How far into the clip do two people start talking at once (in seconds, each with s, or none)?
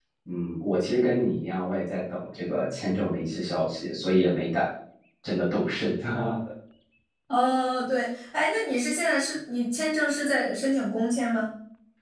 none